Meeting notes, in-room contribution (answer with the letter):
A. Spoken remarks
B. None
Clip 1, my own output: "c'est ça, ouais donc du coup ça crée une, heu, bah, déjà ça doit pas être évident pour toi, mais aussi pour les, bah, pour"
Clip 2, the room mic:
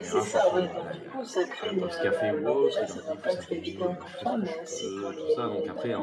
A